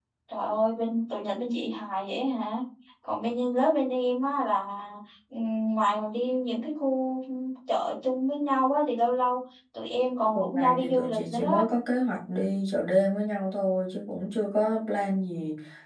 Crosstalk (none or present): present